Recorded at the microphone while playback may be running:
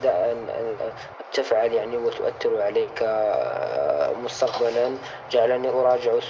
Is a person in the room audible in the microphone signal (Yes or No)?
No